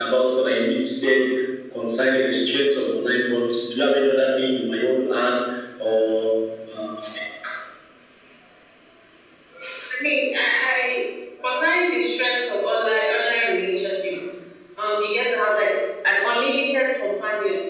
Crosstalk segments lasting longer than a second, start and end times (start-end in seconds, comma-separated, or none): none